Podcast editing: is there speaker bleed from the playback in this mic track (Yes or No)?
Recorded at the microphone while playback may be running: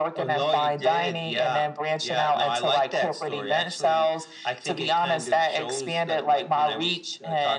Yes